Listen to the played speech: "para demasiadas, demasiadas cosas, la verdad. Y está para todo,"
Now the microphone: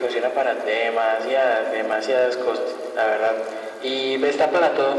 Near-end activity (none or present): none